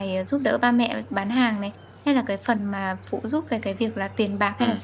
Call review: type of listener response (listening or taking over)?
taking over